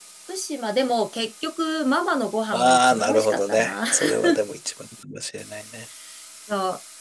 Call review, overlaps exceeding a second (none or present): present